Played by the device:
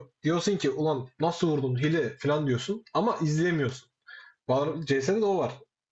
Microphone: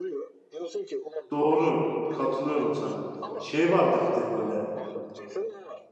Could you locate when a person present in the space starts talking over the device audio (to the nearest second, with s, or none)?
1 s